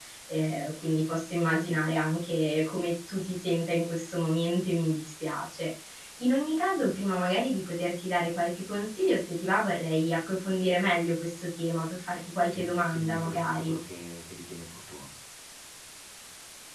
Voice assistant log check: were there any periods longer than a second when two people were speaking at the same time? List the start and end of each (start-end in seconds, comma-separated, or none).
12.5-13.7